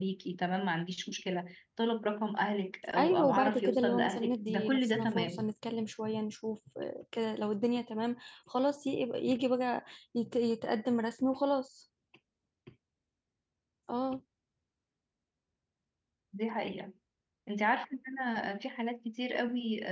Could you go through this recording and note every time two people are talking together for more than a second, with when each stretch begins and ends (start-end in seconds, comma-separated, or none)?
3.0-5.4